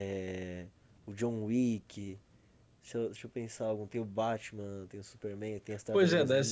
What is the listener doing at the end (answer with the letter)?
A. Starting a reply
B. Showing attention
A